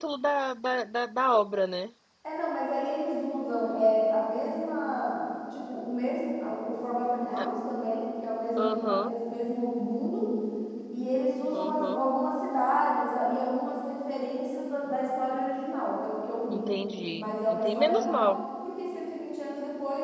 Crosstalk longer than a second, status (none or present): present